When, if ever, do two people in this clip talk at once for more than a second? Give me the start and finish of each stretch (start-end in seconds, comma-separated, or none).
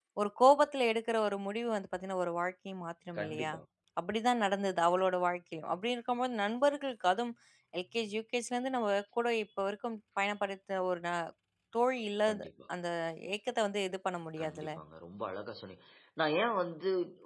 none